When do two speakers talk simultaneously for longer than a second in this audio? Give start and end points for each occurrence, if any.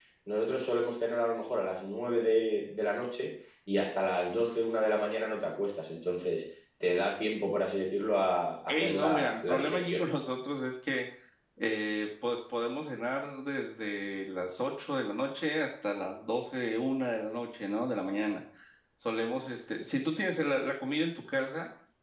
8.7-10.0

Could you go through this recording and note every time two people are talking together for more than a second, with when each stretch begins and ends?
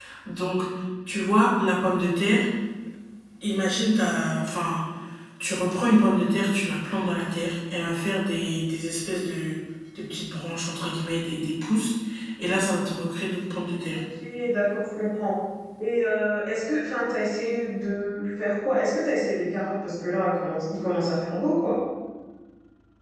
none

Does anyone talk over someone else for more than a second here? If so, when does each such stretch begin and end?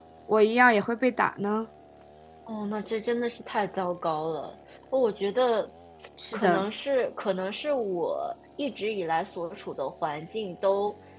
none

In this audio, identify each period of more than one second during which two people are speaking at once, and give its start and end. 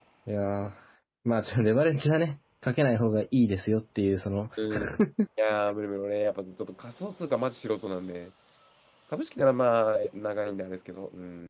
none

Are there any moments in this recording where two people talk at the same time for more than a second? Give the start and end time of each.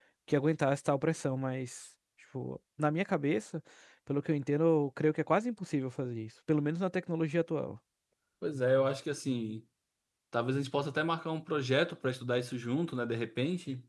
none

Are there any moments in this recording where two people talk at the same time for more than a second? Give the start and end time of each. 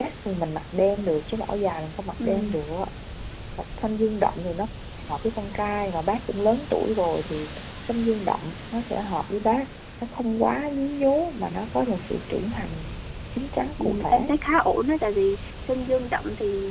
none

